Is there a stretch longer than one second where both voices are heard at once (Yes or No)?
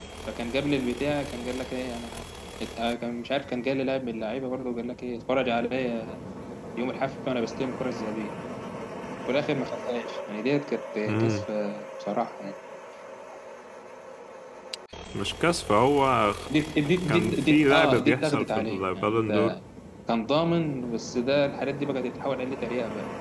Yes